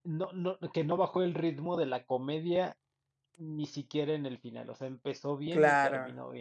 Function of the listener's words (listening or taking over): listening